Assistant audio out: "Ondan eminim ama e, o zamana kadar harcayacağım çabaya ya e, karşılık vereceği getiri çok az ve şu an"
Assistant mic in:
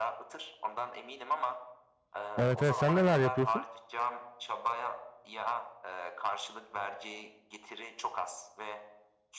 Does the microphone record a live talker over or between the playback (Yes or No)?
Yes